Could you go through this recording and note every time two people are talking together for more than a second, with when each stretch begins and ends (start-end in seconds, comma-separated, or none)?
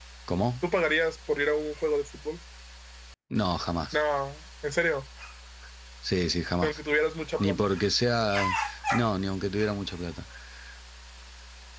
none